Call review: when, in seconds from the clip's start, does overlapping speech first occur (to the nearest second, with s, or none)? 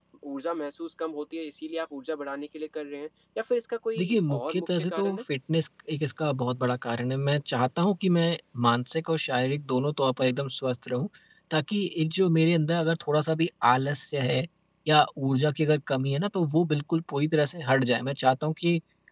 4 s